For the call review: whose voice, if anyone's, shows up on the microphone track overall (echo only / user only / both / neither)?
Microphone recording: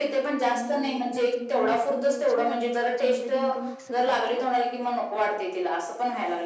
both